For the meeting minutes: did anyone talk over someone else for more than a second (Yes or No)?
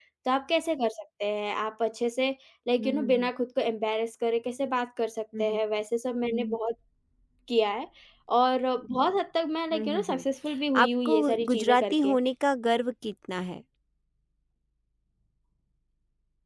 Yes